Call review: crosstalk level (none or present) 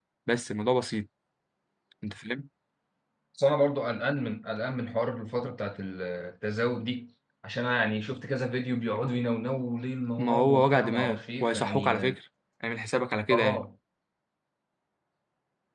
present